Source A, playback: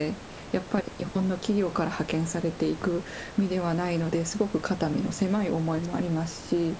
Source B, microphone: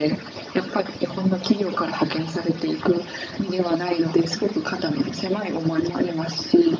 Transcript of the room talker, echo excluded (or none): none